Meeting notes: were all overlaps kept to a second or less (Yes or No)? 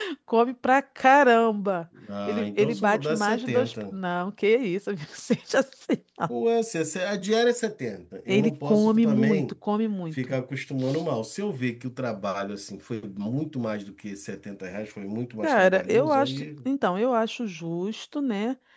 No